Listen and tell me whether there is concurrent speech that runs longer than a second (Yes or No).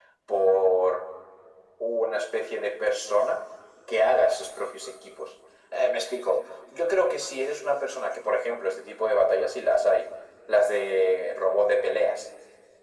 No